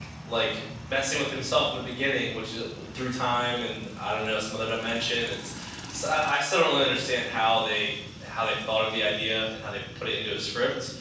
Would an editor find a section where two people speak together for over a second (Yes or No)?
No